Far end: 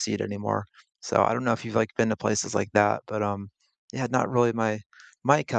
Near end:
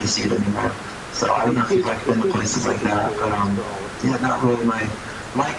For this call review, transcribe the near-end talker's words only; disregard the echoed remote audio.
it it creates it creates a unique experience for all of you.

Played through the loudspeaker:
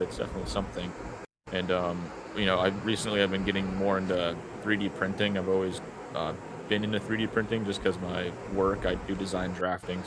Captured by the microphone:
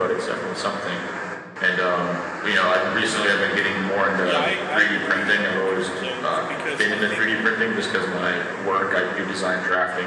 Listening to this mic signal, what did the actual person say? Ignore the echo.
Yeah, I I agree in terms of because I think

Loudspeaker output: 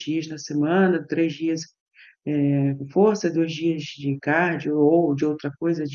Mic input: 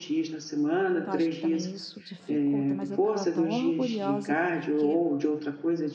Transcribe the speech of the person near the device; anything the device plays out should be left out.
então acho que também isso dificulta, mas eu estava tão orgulhosa, porque

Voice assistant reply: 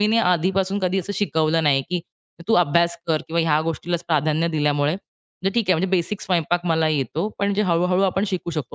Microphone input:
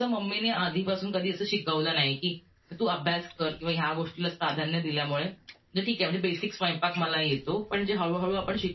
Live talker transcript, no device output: none

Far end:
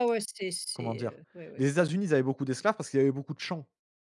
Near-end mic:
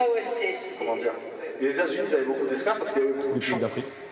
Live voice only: tous les pays d'Afrique,

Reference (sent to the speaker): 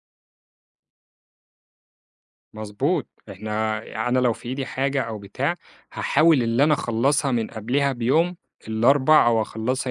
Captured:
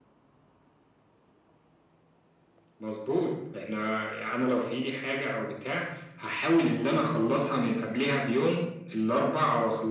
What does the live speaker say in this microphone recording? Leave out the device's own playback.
none

